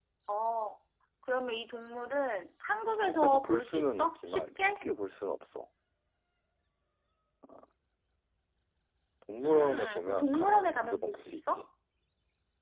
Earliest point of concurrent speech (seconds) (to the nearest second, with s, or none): 3 s